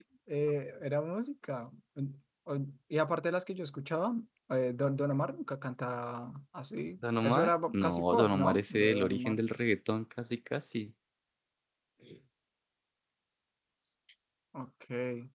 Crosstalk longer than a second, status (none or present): present